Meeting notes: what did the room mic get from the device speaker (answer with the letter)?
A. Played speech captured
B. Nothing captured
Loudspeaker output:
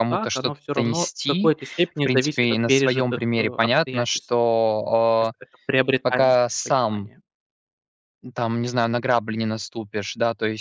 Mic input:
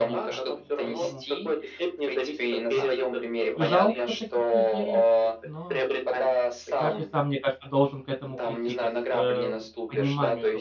A